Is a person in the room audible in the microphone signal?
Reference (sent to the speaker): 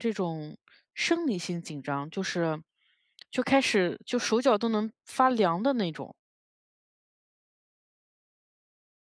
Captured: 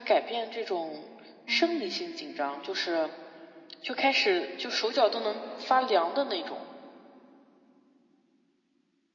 Yes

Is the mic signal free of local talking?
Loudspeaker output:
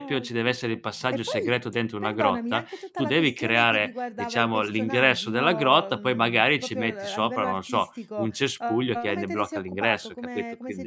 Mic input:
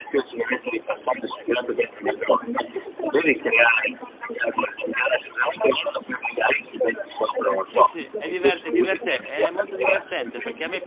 No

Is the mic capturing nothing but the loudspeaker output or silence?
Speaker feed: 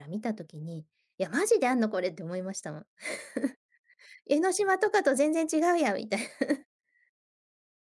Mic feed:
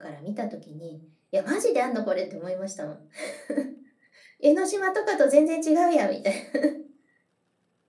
Yes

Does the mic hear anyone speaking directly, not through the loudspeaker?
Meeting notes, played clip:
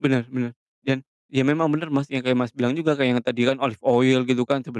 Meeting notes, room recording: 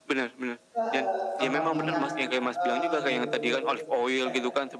Yes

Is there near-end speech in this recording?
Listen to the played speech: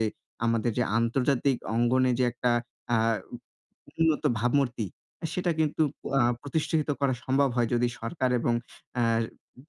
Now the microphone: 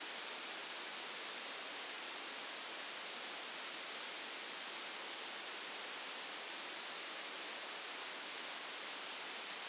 No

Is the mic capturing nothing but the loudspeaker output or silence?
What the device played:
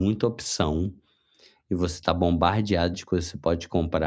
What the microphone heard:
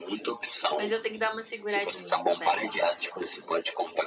No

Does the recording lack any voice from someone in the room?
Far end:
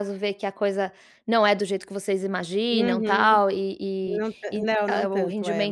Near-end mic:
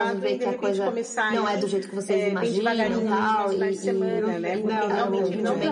No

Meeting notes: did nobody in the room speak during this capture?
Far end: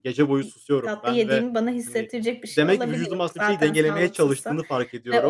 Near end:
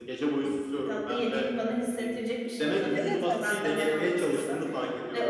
No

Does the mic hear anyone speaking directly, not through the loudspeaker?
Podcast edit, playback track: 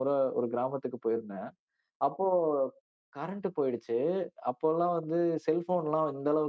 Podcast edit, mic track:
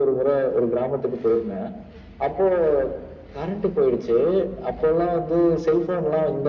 No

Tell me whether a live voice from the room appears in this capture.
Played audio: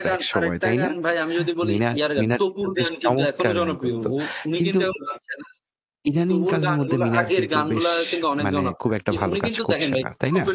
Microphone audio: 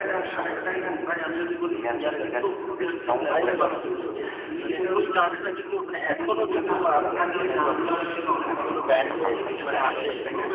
Yes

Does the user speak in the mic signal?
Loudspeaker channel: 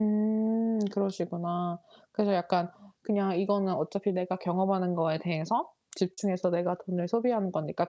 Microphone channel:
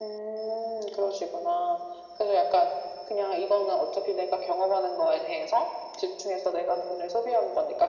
No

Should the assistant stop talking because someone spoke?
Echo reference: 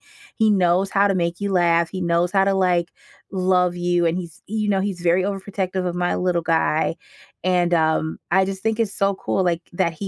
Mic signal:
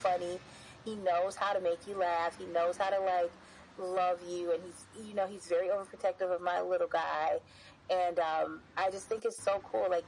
No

